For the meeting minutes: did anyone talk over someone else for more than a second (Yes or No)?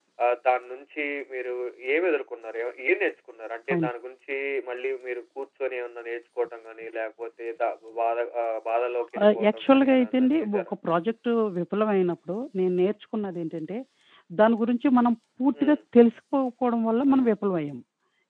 Yes